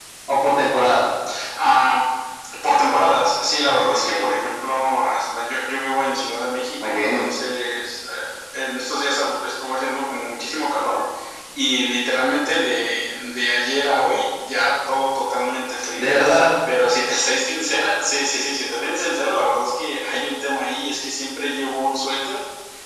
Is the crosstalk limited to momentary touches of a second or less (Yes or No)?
Yes